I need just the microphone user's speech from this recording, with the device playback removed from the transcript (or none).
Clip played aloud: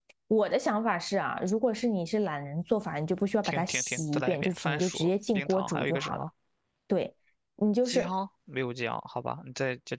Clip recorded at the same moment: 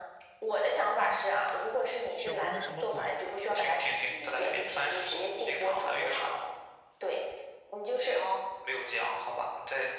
小锅是什么锅？